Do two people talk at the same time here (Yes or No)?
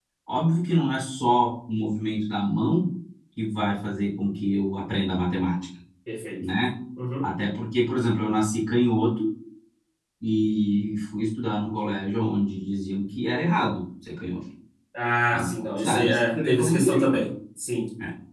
Yes